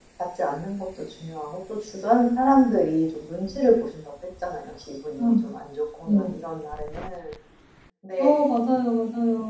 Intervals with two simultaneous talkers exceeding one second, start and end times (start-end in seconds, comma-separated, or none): none